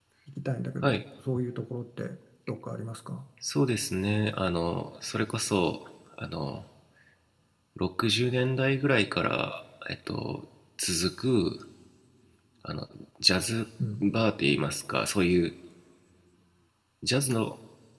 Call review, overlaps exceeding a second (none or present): none